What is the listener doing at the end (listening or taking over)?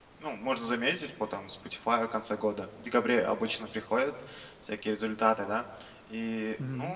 listening